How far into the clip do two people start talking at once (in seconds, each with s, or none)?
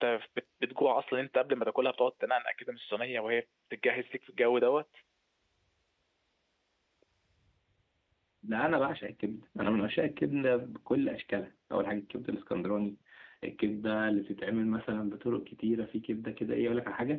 none